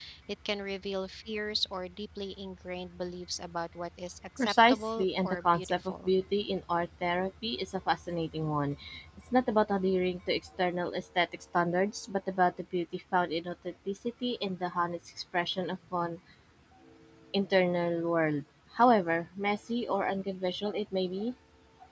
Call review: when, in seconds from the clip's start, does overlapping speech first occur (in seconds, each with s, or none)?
4.4 s